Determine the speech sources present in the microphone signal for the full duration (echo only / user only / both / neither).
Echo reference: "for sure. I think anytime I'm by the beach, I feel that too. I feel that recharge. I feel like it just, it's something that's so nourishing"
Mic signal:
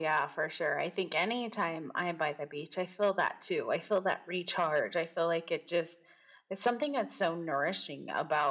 echo only